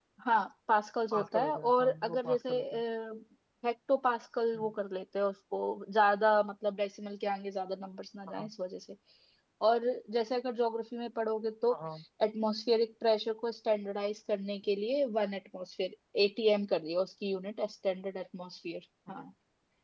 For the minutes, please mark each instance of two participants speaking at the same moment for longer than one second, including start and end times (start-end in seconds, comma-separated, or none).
1.1-2.6